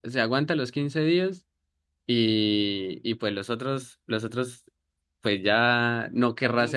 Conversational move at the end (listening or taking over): listening